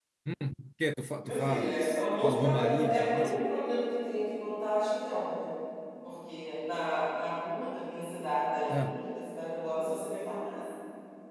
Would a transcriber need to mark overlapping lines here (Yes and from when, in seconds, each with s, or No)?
Yes, from 1.2 s